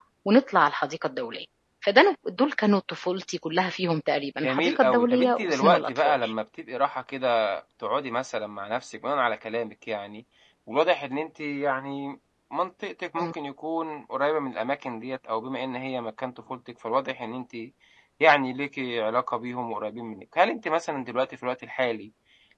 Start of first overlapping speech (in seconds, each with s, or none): 4.4 s